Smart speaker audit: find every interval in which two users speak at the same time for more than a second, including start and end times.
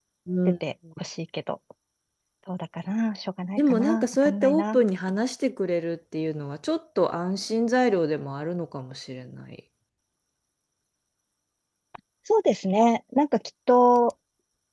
3.6-4.8

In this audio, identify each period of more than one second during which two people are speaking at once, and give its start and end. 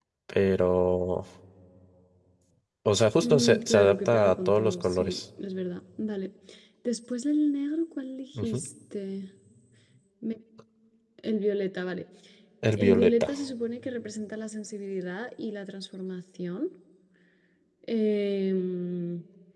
3.2-5.2

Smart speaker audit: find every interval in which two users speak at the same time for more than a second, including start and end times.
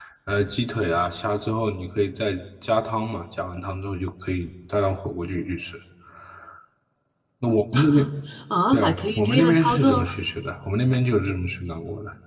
8.7-10.0

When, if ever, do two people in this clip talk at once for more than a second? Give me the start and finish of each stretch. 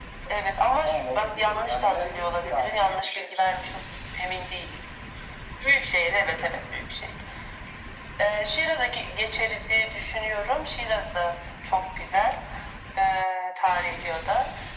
0.8-3.4

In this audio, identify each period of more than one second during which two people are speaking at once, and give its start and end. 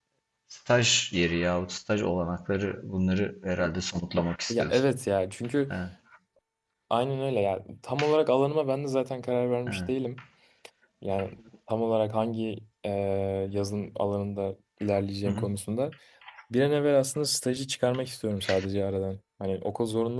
none

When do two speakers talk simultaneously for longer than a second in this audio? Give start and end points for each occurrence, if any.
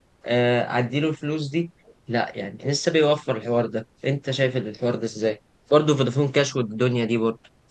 none

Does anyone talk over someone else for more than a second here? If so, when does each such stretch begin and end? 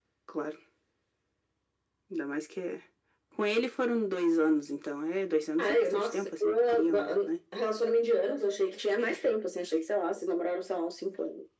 5.6-7.3

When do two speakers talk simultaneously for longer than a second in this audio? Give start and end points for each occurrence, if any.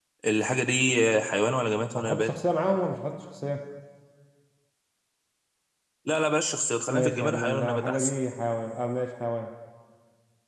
6.9-8.1

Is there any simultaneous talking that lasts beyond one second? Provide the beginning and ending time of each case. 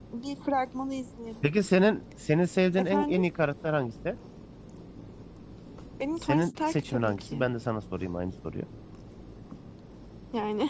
6.2-7.5

